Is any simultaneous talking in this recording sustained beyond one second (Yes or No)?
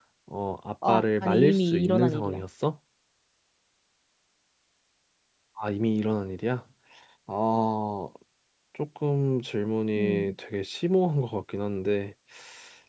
Yes